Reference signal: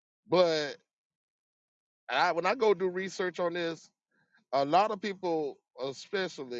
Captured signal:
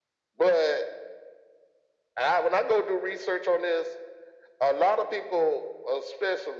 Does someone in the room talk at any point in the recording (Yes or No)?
No